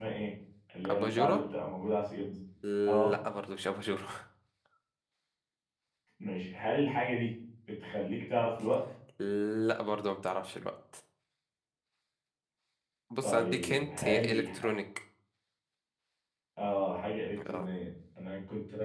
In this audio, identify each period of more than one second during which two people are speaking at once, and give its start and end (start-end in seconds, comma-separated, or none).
13.2-14.4